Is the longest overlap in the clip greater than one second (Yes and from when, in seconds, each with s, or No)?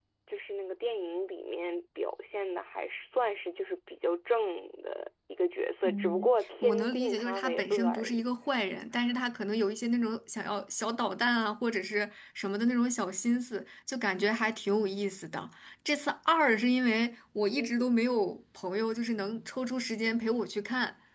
Yes, from 5.8 s